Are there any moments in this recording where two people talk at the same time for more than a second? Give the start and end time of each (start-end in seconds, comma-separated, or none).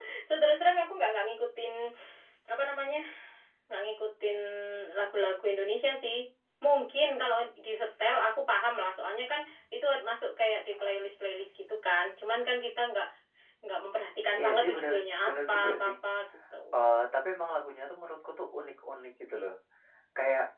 14.4-15.9